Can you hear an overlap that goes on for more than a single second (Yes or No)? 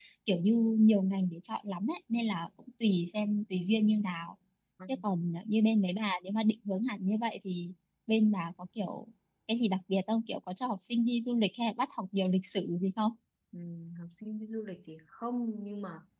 No